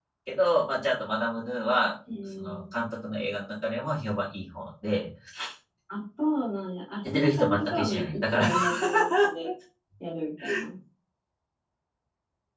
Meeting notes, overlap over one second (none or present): present